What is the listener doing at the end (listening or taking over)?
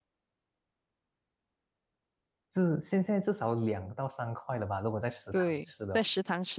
taking over